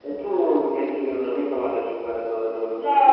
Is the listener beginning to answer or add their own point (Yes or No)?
Yes